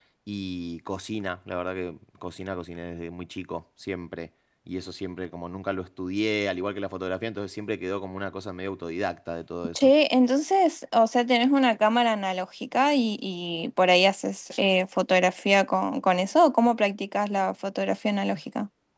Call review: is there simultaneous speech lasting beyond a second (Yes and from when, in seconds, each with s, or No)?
No